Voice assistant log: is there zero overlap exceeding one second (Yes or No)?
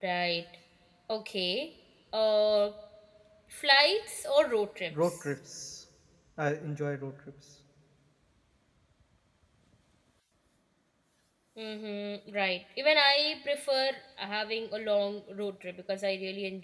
Yes